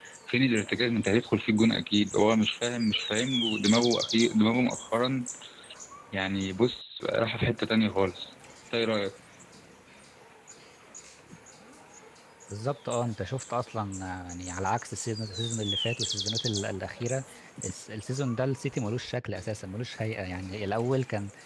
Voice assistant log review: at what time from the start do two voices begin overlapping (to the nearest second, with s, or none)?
none